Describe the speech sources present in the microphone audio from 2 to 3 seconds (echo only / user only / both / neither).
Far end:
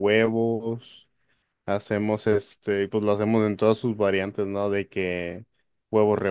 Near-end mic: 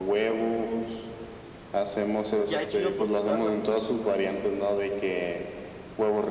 both